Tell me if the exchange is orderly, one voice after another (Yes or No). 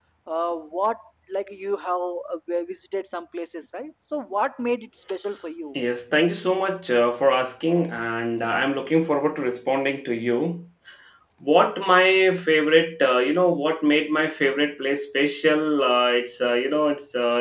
Yes